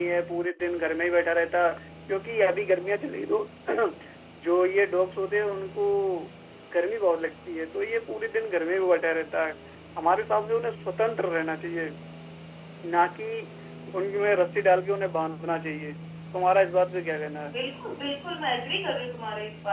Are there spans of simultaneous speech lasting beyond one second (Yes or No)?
No